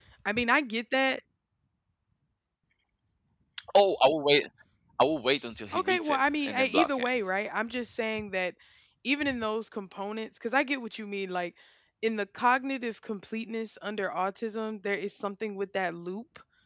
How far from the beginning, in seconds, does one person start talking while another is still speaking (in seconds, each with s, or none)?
5.7 s